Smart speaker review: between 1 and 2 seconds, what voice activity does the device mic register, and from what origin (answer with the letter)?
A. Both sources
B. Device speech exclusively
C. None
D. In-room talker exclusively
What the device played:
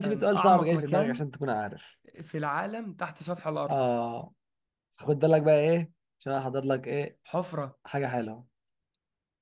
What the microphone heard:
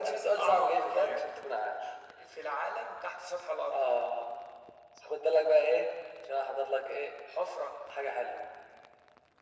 B